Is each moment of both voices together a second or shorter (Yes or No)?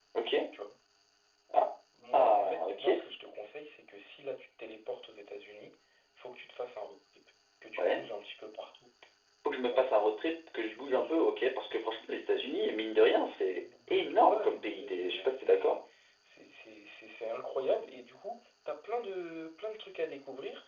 No